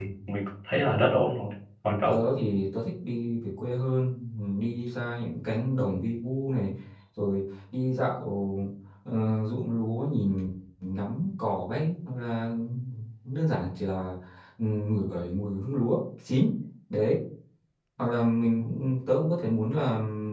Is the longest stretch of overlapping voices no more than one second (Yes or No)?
Yes